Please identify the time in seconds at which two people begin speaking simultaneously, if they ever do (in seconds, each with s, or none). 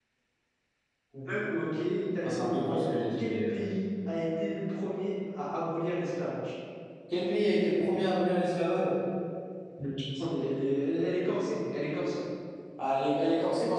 2.2 s